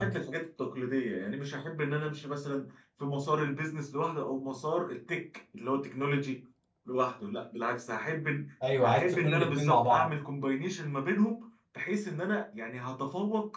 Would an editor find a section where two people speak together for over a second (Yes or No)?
Yes